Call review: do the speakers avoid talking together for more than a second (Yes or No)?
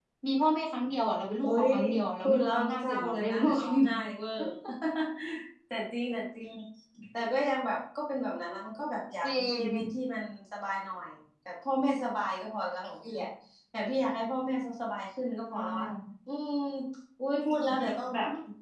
No